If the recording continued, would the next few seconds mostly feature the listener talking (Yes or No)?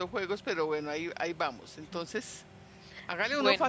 No